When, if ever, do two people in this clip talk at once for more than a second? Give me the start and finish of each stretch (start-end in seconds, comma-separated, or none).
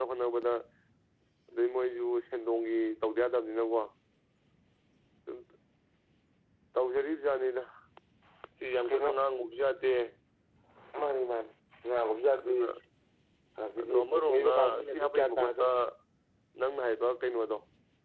13.8-15.7